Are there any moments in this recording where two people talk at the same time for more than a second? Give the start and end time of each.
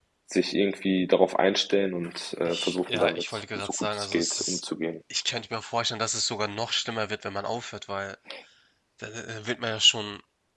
2.5-4.6

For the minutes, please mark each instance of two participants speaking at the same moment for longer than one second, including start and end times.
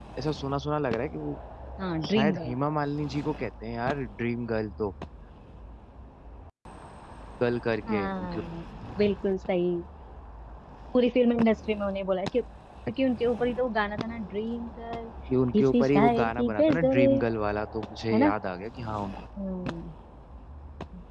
15.5-17.0

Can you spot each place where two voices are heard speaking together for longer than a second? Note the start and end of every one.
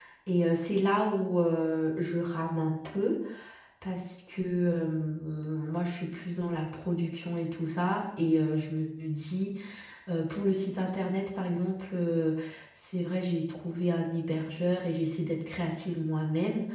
none

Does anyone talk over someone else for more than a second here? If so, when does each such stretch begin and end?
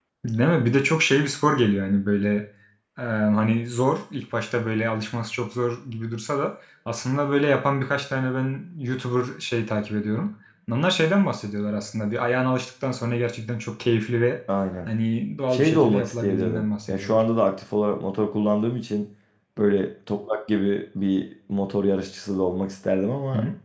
15.5-17.2

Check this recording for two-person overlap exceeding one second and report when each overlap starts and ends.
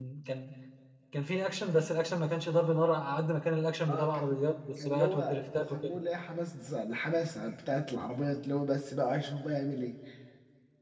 4.8-6.0

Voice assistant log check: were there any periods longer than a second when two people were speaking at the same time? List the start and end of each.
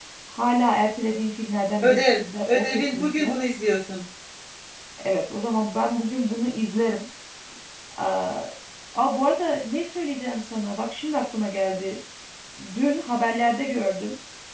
1.8-3.4

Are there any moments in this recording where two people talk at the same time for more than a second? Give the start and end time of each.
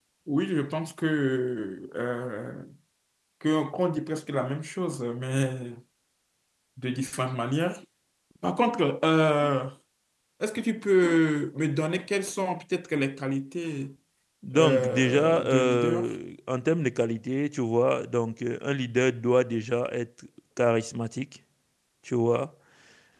14.6-16.1

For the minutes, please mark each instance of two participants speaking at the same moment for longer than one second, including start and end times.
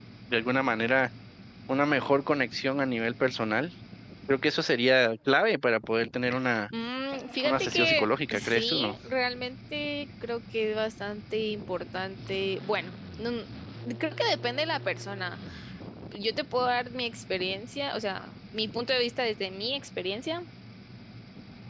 7.4-8.9

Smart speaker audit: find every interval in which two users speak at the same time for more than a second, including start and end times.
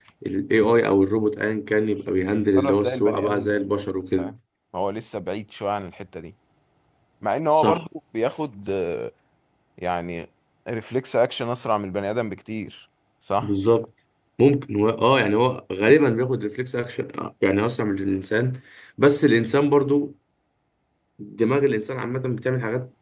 2.2-3.5

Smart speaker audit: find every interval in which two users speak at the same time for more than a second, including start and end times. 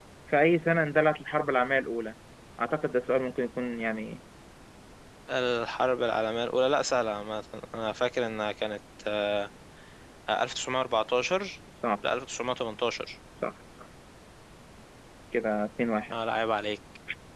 none

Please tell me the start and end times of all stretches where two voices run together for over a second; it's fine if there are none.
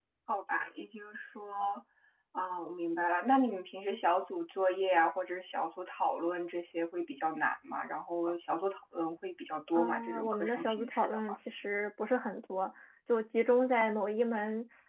9.8-11.4

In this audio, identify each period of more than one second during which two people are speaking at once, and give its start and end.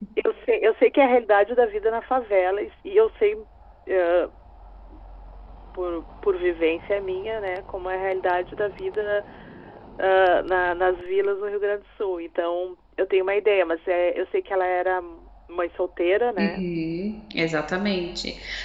none

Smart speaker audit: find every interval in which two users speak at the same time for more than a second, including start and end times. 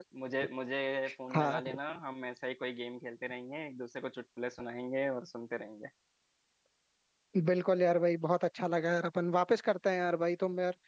none

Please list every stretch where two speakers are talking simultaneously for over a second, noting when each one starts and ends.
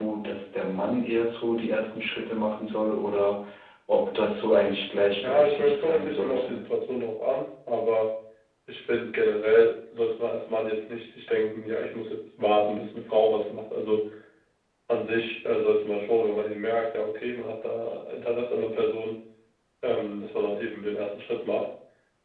5.2-6.6

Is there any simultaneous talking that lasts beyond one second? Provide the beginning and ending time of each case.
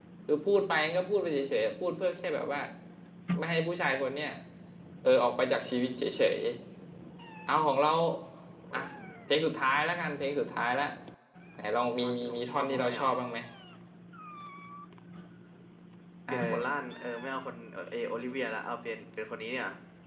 11.8-13.1

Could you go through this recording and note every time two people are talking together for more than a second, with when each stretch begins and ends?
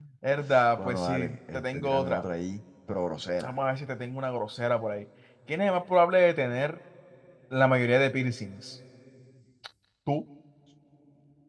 0.8-2.2

